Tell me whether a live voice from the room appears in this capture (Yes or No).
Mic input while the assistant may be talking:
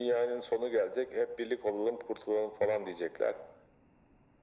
No